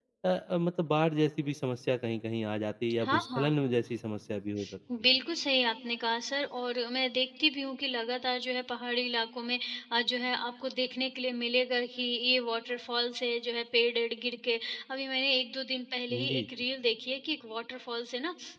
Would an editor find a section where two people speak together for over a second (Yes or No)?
No